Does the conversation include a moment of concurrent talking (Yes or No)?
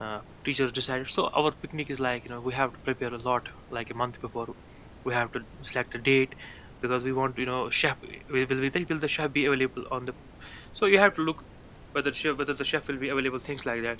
No